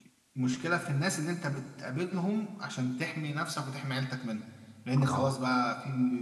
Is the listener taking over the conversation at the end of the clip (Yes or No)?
No